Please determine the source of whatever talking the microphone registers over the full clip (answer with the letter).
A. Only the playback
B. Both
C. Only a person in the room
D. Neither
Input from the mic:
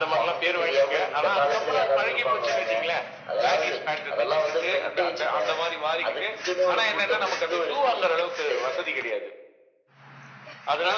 A